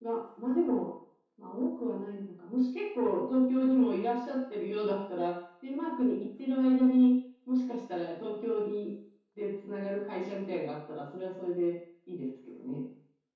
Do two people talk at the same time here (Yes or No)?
No